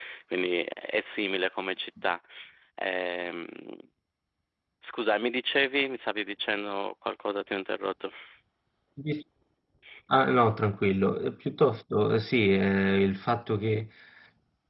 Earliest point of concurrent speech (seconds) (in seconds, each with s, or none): none